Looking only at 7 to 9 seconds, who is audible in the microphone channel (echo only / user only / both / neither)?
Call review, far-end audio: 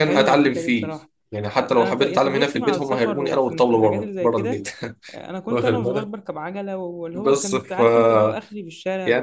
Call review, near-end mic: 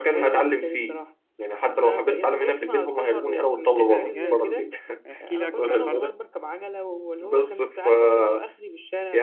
echo only